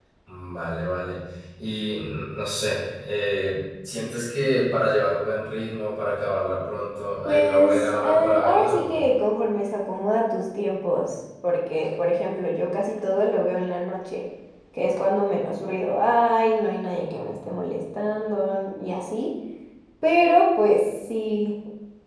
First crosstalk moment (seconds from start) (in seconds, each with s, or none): 7.2 s